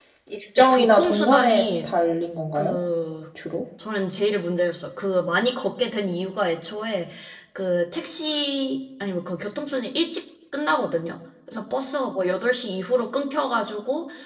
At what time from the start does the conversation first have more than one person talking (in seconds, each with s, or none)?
0.6 s